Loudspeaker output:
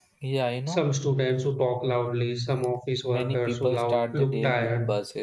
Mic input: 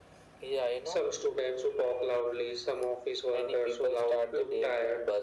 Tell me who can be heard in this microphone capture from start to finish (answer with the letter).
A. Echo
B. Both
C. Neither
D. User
A